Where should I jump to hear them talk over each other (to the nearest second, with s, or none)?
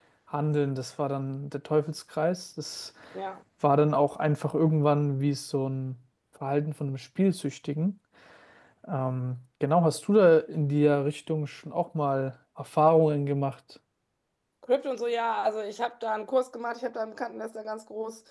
none